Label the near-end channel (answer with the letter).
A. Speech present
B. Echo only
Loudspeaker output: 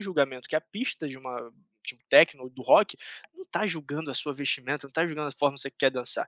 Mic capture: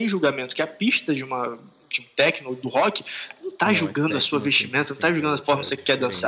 A